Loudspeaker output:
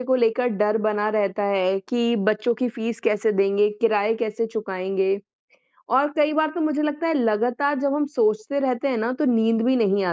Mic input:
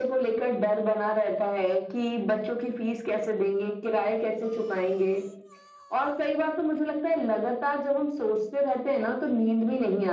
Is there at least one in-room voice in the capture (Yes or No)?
No